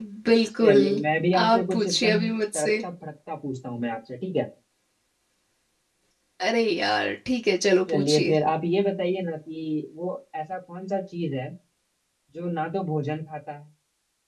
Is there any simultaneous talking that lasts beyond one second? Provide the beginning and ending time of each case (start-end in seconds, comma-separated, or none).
1.4-2.7